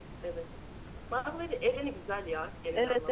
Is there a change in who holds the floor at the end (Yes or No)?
Yes